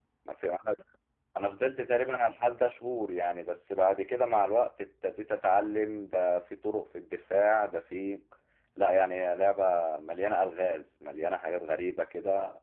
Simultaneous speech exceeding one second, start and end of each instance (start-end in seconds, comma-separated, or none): none